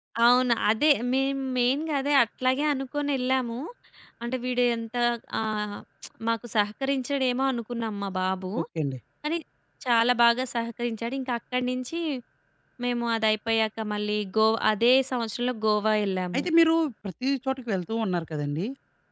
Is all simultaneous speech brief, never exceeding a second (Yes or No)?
Yes